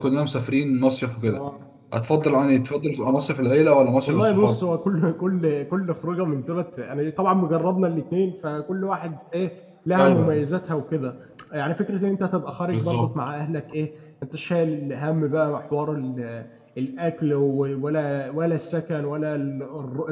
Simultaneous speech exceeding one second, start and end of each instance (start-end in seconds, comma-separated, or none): none